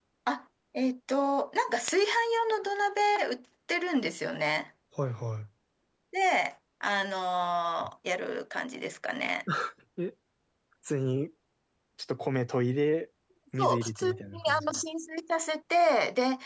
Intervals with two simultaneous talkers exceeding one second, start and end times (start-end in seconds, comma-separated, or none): 13.6-14.8